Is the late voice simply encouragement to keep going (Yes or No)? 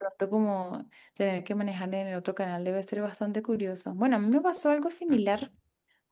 Yes